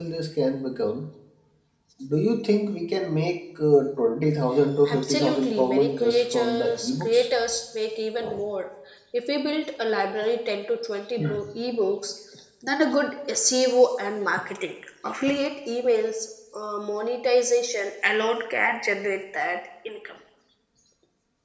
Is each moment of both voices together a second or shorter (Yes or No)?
No